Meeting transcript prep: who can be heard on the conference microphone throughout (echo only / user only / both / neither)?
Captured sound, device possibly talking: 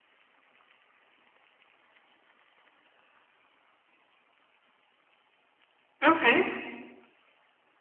user only